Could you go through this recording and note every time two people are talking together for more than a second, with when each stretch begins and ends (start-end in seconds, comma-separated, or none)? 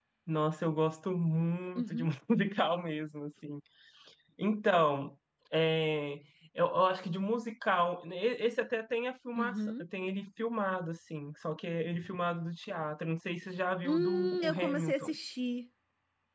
13.8-15.1